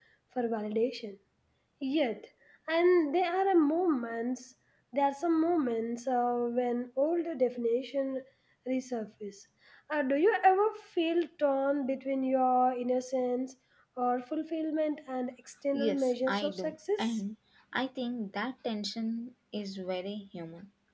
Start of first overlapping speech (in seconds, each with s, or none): 15.7 s